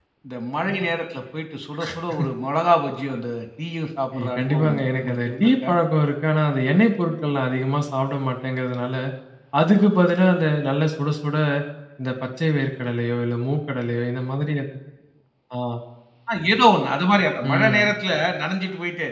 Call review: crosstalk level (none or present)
present